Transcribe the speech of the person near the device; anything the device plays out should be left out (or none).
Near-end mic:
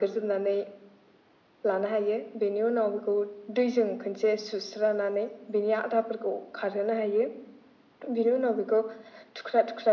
none